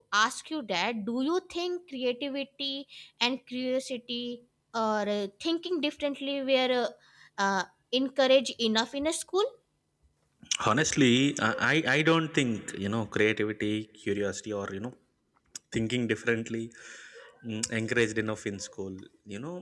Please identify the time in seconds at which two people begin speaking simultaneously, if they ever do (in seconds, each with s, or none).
none